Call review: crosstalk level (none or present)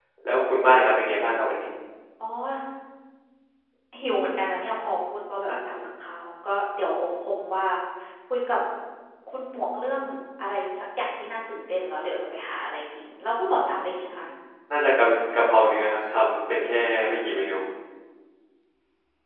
none